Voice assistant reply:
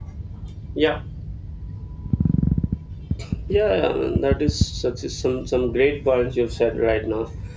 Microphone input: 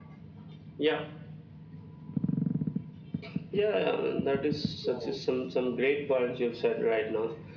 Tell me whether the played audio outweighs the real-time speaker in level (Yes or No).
Yes